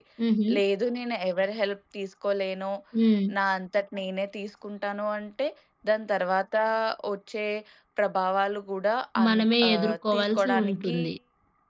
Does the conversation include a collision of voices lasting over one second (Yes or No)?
Yes